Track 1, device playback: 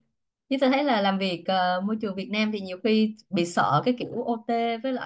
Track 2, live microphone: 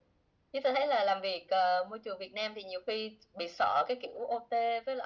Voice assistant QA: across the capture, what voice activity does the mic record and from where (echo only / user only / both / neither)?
echo only